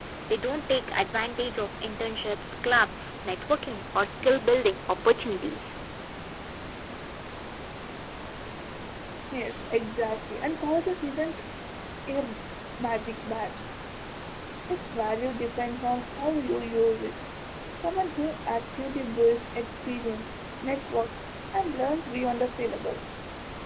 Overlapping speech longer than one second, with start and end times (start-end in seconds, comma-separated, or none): none